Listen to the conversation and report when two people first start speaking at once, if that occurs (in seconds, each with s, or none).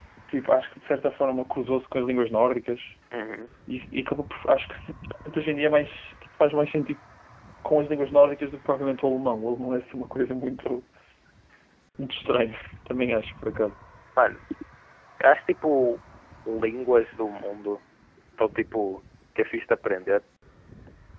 none